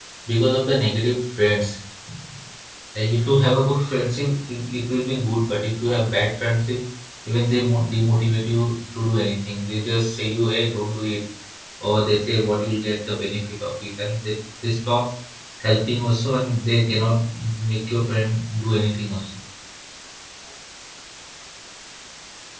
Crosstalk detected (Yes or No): No